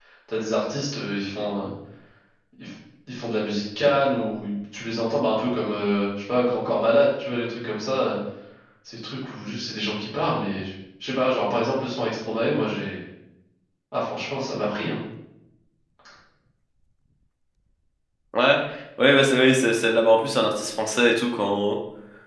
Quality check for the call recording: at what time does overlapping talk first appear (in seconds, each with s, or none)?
none